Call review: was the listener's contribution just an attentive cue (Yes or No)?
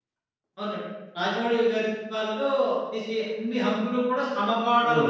No